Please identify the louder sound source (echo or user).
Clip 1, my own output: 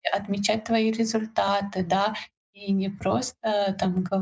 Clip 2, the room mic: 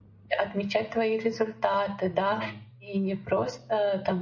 echo